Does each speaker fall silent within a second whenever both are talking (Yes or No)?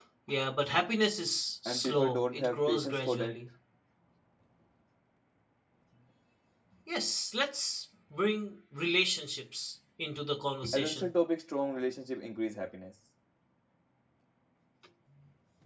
No